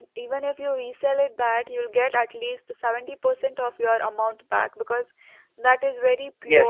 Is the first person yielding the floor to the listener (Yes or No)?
Yes